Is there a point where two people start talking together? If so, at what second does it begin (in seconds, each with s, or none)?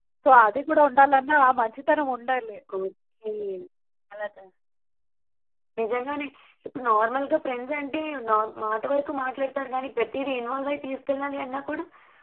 none